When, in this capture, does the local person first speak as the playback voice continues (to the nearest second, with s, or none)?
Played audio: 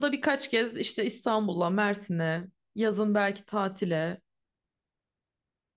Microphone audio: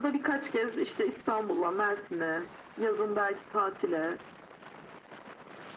none